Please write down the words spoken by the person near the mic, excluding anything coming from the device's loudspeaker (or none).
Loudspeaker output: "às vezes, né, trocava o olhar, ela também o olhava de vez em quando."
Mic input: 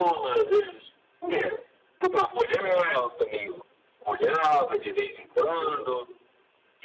none